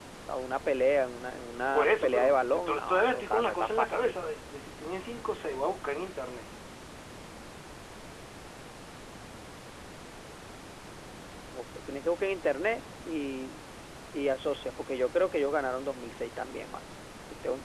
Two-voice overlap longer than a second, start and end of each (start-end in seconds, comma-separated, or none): 1.7-4.1